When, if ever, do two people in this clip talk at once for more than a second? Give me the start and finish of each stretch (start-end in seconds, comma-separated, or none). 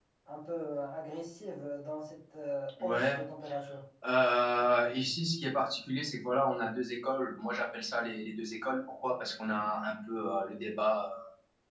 none